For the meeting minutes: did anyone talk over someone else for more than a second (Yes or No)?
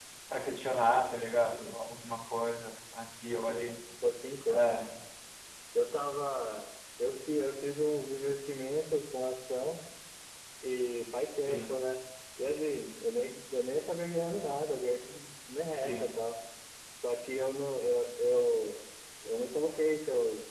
No